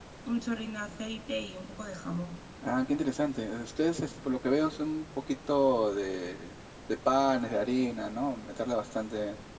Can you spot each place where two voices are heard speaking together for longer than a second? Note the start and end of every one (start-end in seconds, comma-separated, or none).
none